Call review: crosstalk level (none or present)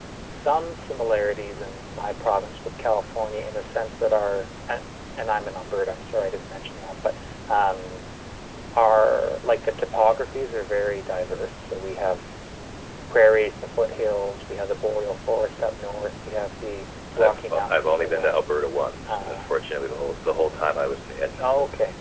present